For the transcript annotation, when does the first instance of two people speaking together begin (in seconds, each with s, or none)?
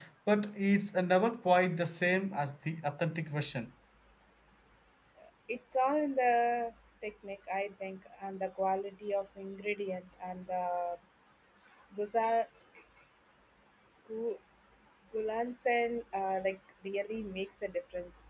none